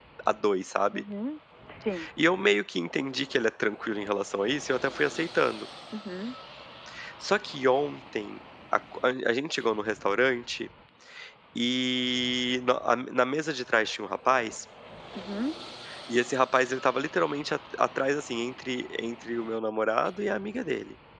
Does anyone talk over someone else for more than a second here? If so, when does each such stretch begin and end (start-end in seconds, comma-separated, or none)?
none